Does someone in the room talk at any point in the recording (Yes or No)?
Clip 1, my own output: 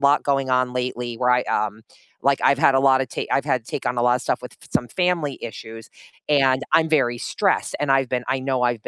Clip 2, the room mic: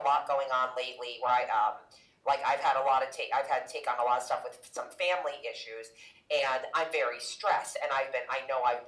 No